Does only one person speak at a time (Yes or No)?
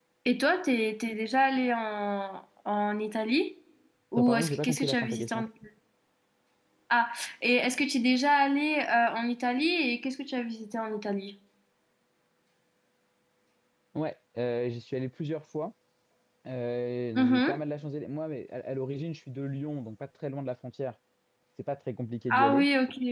No